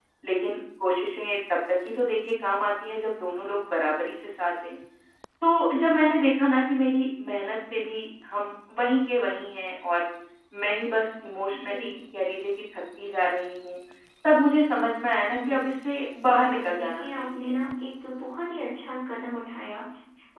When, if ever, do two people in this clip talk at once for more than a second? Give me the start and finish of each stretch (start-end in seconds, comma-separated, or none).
16.3-17.6